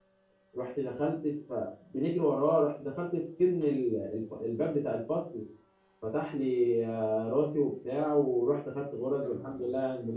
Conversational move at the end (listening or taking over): listening